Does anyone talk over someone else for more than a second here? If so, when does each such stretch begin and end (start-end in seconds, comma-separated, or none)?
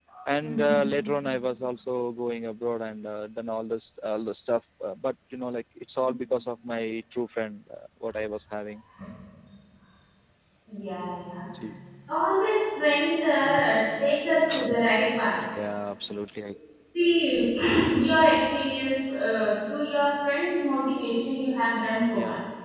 none